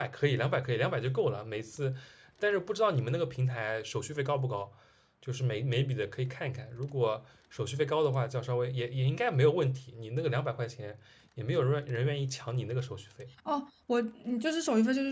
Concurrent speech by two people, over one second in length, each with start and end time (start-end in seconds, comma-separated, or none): none